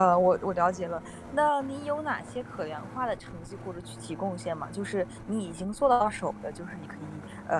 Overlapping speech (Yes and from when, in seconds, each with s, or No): No